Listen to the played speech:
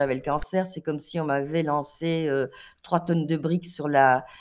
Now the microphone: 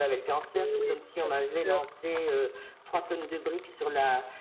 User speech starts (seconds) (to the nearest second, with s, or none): 1 s